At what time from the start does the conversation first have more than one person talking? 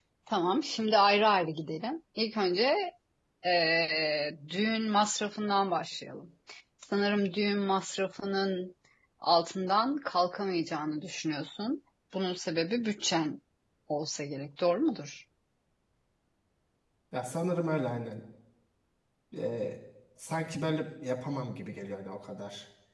none

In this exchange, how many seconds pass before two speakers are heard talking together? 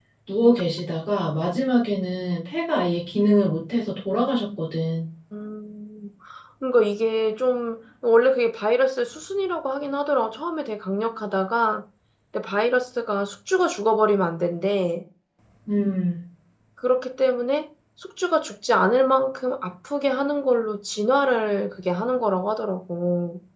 none

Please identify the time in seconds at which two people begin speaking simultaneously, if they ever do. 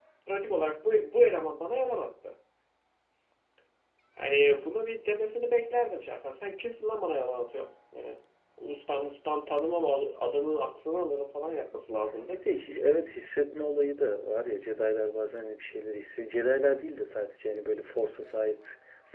none

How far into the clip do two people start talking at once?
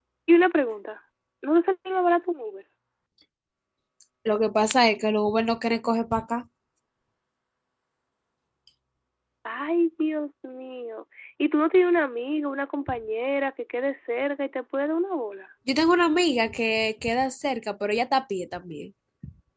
none

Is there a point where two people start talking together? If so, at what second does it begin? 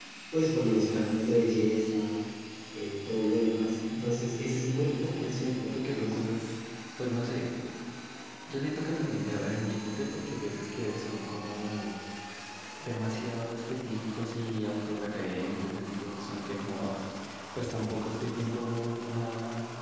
5 s

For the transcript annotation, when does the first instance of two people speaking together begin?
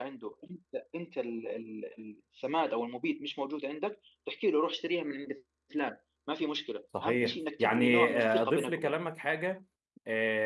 7 s

